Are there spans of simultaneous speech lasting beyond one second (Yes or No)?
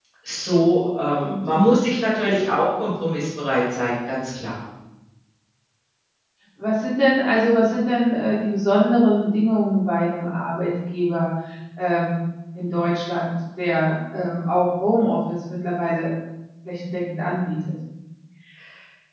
No